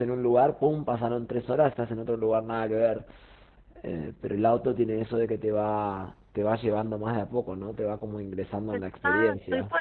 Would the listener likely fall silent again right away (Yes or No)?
No